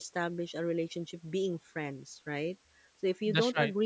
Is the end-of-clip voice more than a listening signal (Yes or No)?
No